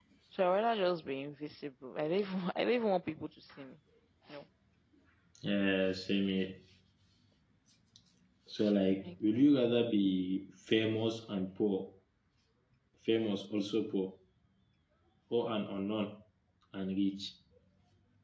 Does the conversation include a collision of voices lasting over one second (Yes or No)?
No